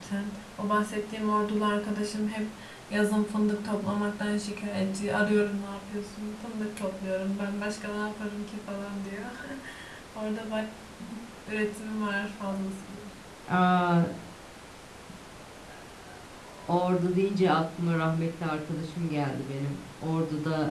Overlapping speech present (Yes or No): No